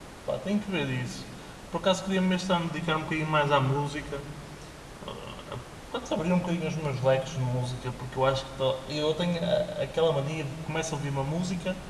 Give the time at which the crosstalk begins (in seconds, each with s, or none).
none